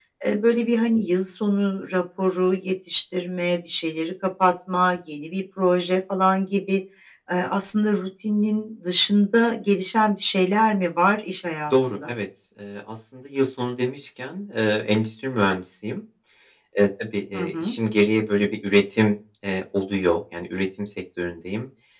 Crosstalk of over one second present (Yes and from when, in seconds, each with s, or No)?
No